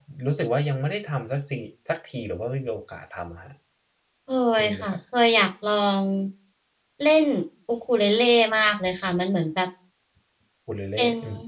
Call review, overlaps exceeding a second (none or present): none